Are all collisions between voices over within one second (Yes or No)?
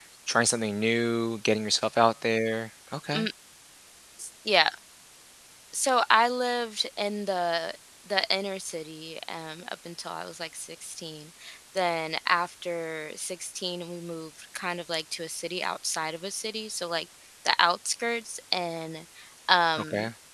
Yes